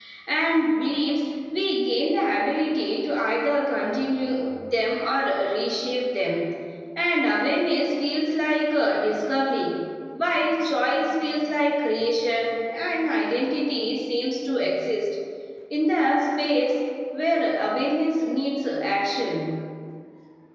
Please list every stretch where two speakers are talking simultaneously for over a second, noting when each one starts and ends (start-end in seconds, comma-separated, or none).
none